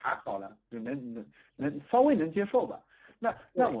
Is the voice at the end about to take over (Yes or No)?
No